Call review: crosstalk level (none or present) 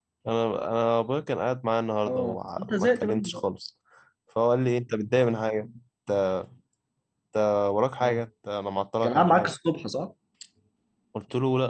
present